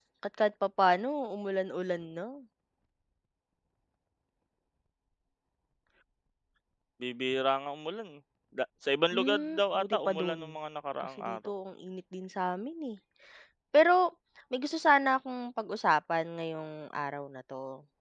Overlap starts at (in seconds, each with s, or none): 9.1 s